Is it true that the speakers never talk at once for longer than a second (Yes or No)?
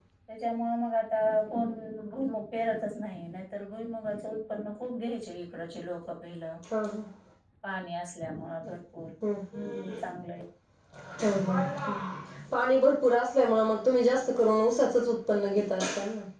Yes